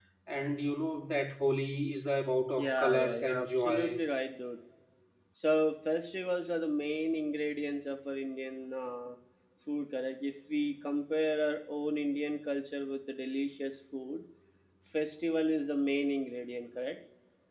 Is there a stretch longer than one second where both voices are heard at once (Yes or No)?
Yes